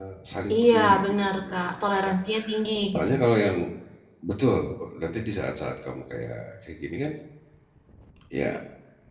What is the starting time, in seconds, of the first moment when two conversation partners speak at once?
0.5 s

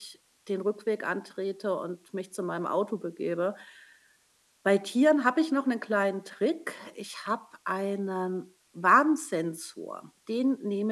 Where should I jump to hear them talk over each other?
none

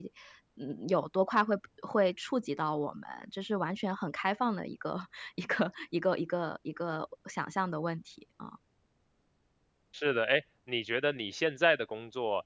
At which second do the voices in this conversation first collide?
none

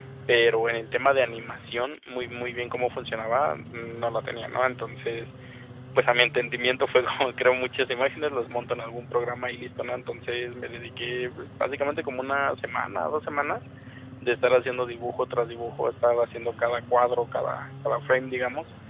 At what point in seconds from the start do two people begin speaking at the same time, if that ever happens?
none

